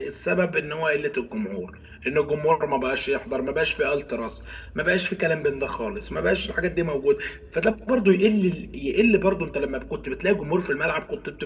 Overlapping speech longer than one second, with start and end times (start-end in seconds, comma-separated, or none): none